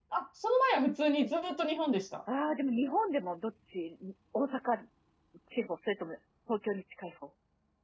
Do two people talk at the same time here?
No

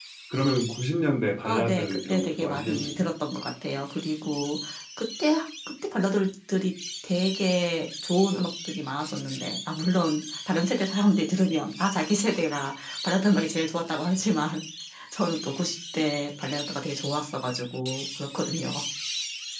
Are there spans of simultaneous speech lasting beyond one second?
Yes, from 1.4 s

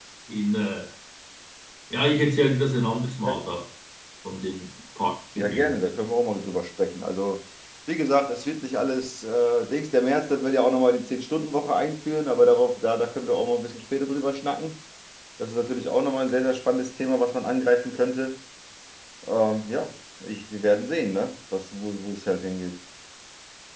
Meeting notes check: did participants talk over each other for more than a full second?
No

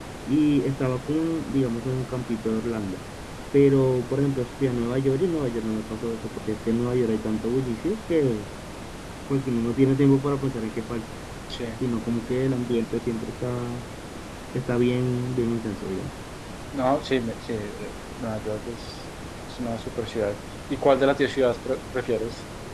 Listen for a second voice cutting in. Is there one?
No

